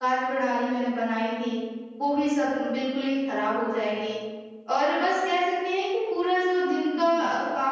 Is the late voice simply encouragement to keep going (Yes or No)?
Yes